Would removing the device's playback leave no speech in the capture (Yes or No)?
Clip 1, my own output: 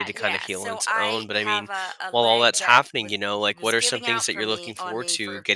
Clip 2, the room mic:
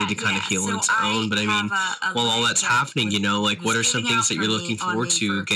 Yes